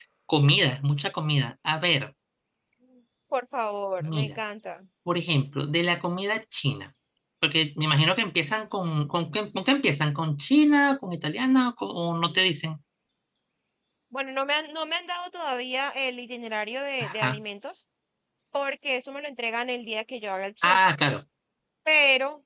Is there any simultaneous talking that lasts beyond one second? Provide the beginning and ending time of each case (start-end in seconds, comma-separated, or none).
none